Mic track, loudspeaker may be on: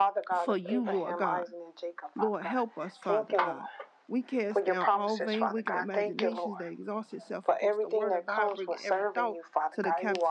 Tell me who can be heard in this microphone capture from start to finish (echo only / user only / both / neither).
both